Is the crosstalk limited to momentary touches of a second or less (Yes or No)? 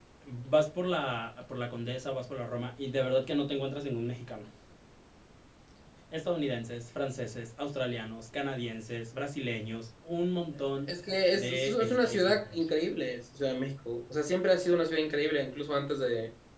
No